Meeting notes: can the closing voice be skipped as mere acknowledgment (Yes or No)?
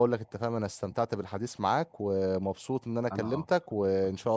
Yes